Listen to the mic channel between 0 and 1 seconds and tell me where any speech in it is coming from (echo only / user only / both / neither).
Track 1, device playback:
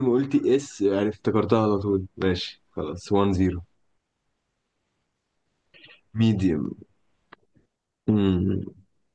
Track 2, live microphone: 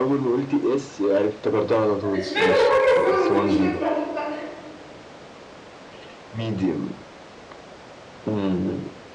echo only